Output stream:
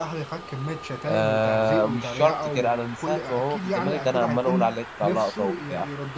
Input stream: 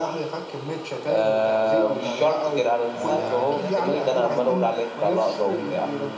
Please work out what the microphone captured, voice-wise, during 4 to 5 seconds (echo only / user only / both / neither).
both